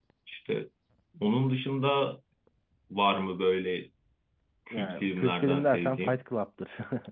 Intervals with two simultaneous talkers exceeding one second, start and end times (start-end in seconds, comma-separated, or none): 4.7-6.2